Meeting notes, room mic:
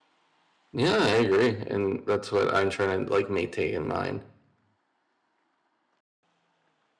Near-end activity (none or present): present